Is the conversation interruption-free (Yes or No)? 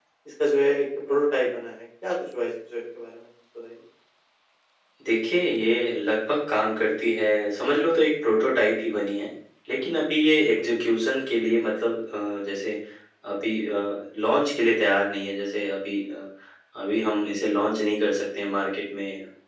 Yes